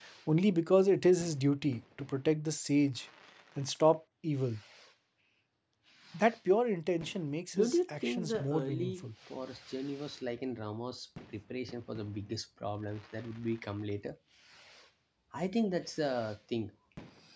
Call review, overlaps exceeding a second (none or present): present